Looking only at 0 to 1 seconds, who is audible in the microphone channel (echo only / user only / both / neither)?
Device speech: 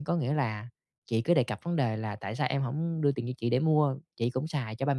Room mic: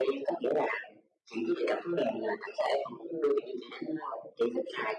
echo only